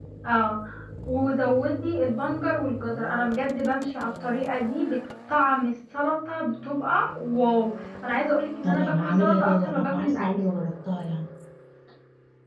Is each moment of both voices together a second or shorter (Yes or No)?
No